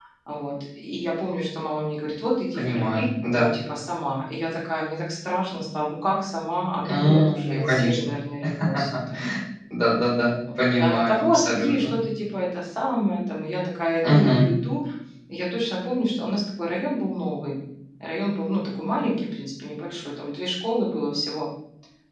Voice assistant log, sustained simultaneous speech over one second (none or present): present